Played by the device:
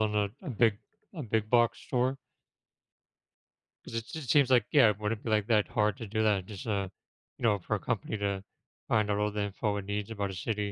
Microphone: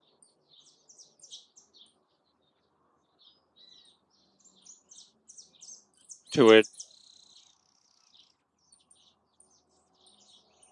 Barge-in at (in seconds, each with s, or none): 6.3 s